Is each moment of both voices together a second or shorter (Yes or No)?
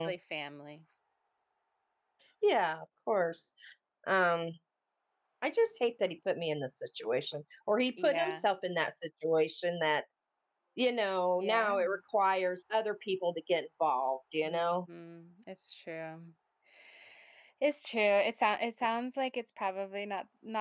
Yes